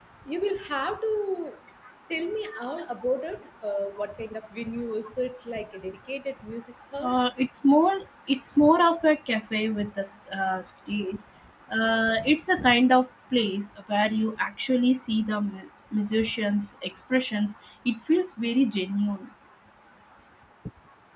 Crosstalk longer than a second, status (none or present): none